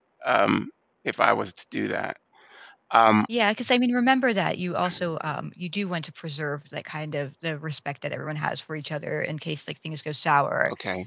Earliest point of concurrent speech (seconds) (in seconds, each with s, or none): none